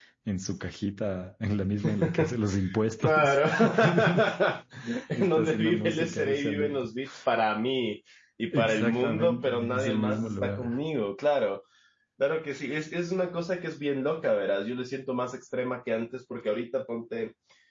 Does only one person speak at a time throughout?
No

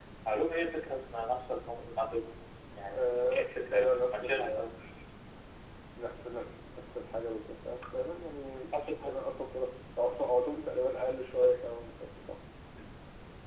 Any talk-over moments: Yes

